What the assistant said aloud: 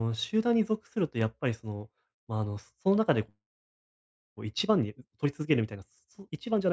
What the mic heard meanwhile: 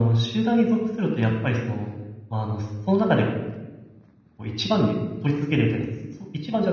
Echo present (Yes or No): Yes